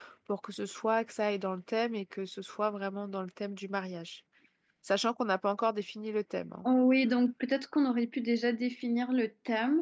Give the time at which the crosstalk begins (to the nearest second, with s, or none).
none